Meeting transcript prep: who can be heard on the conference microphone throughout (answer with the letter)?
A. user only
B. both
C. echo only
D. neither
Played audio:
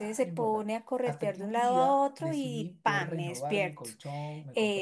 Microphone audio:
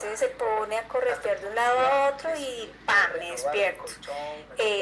C